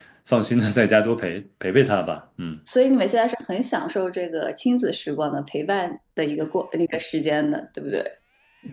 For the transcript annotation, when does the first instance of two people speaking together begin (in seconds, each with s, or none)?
none